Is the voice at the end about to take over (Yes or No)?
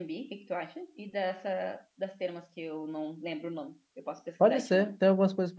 Yes